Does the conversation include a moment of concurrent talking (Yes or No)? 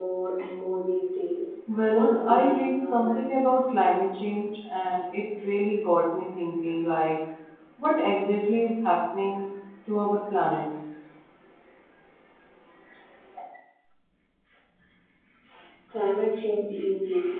Yes